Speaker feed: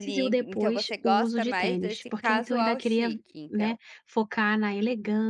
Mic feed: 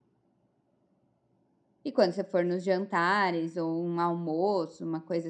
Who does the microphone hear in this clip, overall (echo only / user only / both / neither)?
user only